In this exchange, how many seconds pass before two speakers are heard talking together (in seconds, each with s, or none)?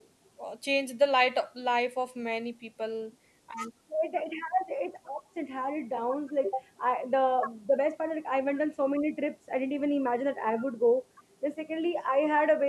none